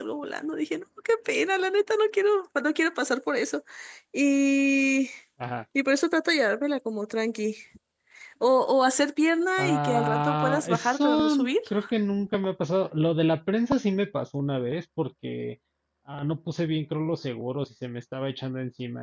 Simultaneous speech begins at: 9.6 s

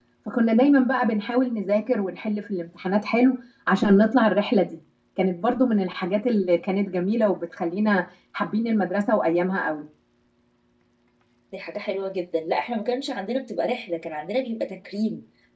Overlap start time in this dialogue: none

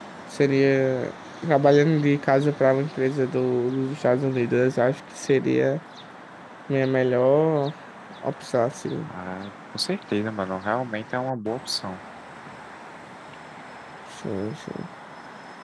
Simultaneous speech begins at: none

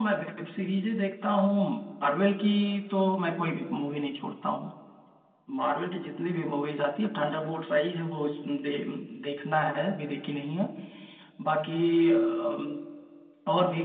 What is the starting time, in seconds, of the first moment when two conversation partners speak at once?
none

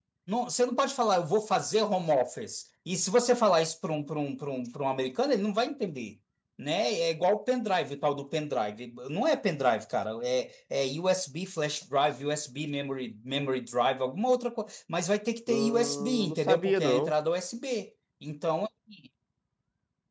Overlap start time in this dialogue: 15.5 s

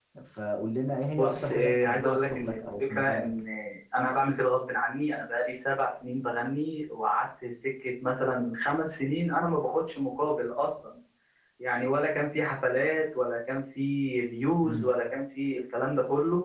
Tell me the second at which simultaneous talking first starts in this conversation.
1.1 s

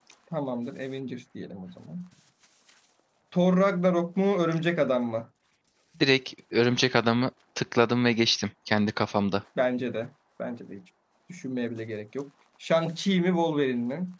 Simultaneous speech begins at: none

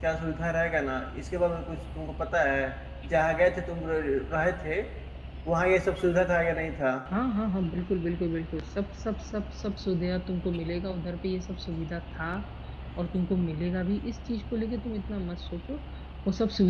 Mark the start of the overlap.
none

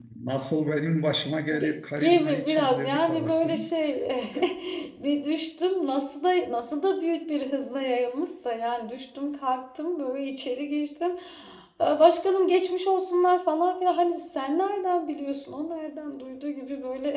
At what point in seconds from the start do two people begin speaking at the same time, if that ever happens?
1.5 s

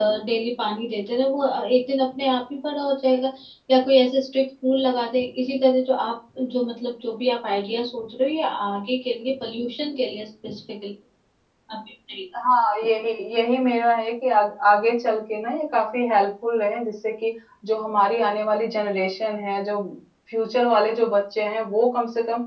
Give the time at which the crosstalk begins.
none

